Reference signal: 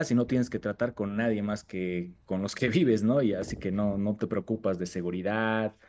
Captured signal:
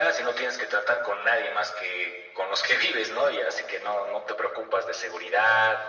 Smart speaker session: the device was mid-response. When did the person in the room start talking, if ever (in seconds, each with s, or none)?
none